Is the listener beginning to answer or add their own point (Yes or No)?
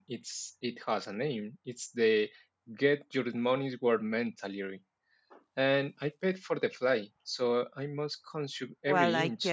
Yes